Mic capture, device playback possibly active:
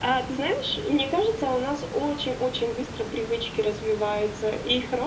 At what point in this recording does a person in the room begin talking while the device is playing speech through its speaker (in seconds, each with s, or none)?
none